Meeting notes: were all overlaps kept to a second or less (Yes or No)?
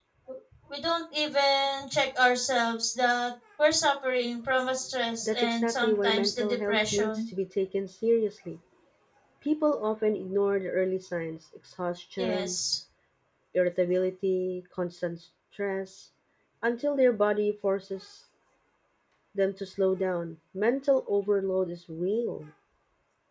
No